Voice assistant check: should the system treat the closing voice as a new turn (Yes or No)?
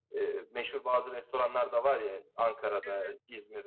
No